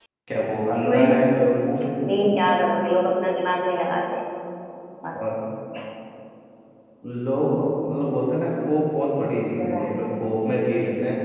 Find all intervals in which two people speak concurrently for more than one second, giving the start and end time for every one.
none

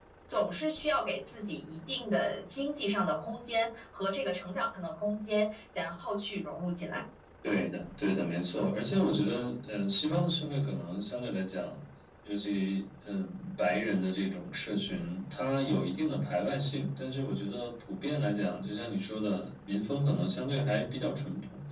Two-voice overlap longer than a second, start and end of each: none

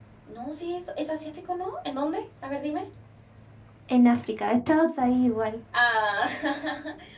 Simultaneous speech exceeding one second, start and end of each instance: none

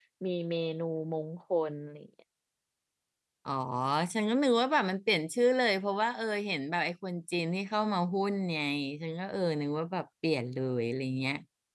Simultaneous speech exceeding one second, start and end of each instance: none

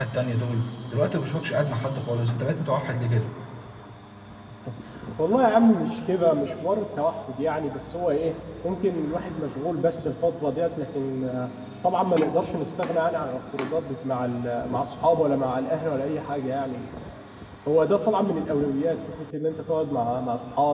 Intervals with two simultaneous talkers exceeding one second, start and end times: none

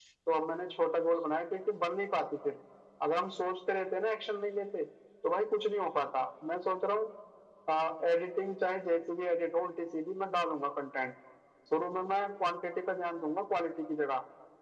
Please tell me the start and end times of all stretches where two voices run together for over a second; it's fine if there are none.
none

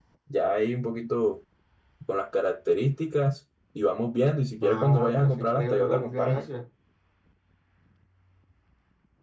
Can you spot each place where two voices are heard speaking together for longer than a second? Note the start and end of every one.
4.6-6.5

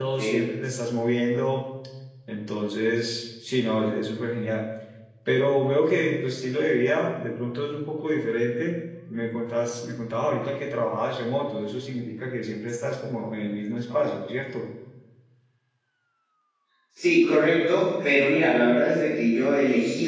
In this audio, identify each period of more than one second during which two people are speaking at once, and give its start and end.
none

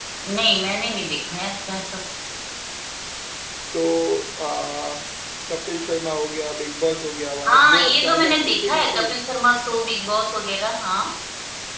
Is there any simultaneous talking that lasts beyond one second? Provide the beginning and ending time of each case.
7.5-9.1

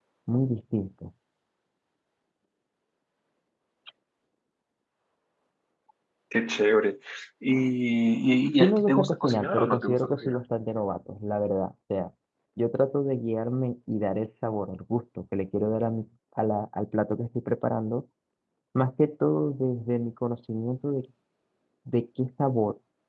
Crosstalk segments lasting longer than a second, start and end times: 8.6-10.4

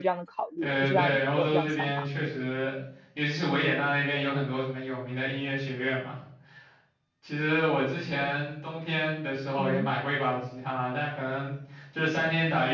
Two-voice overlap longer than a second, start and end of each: 0.6-2.1

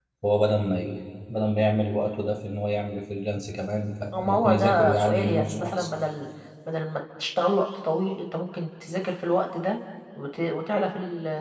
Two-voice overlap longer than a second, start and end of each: 4.1-5.9

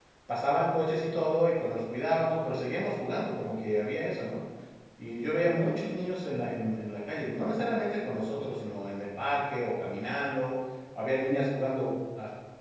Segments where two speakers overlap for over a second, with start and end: none

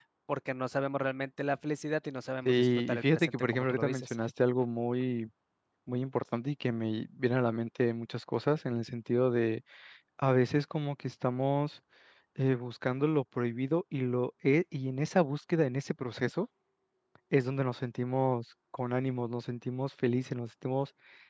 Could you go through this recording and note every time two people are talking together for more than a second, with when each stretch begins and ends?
2.5-4.2

